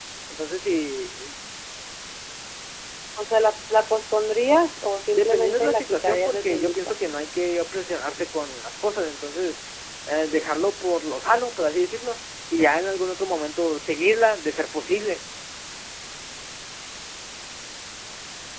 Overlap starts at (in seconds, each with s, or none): 5.1 s